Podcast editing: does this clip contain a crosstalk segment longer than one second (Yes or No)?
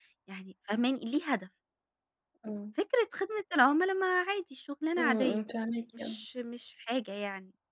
No